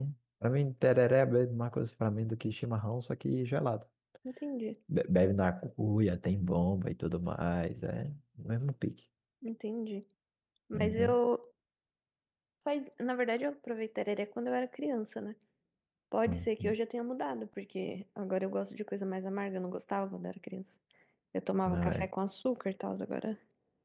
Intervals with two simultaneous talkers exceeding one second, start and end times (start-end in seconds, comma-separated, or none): none